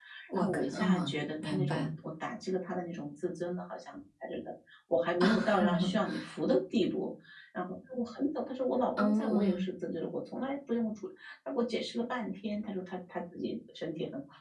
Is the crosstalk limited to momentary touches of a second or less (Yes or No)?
No